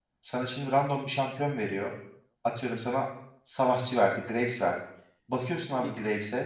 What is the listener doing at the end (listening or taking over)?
listening